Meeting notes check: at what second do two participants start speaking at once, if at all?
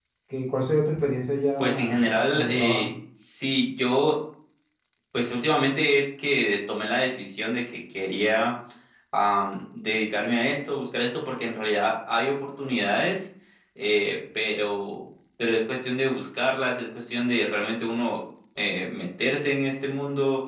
1.6 s

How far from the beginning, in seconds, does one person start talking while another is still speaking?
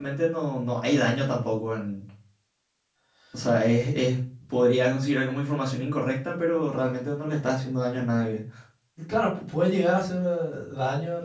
none

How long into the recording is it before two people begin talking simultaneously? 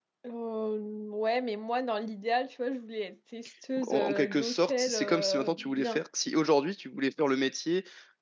3.8 s

